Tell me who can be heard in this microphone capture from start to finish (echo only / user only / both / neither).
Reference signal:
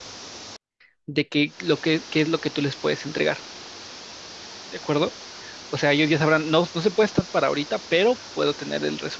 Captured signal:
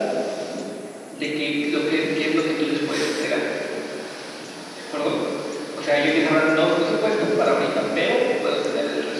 echo only